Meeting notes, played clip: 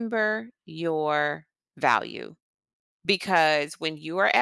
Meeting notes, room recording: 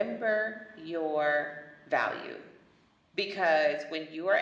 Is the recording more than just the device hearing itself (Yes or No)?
No